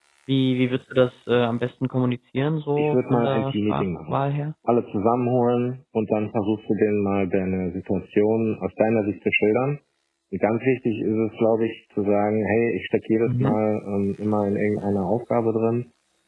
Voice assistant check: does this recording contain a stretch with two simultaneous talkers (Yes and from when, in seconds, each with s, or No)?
Yes, from 2.8 s